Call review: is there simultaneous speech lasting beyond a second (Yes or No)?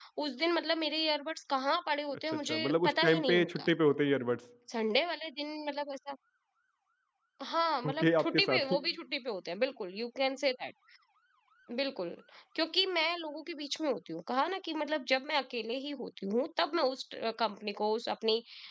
Yes